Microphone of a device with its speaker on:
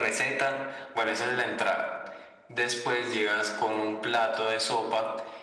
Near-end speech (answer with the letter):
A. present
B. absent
B